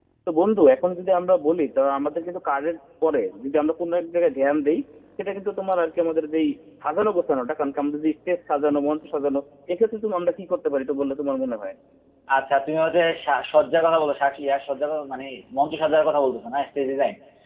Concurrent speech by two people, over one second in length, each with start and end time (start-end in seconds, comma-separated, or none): none